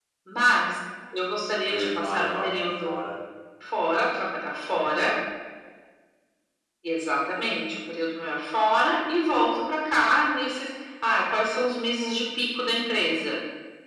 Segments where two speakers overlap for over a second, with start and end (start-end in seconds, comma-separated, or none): 1.7-3.0